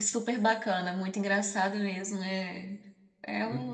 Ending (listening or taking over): listening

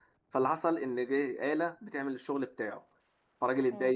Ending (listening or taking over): listening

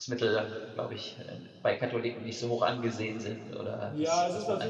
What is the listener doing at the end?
taking over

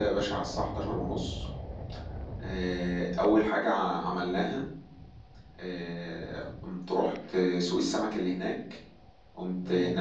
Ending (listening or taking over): listening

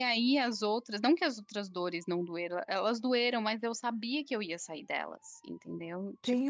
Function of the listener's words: taking over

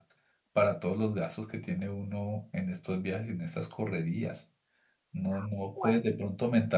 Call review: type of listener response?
listening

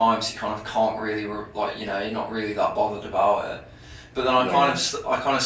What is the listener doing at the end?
listening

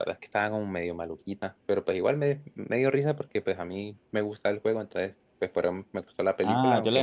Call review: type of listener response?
taking over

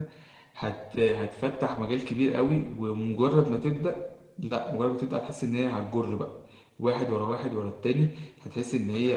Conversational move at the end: taking over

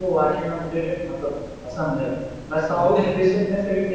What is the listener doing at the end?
listening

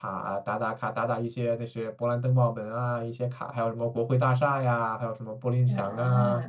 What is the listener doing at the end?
taking over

